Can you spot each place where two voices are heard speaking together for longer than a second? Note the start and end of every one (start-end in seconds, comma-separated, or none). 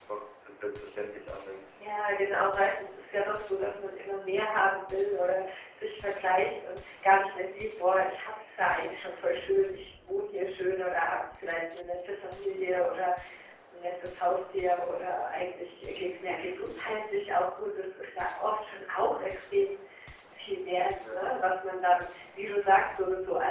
none